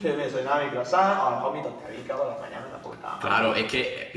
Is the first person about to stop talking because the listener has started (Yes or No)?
Yes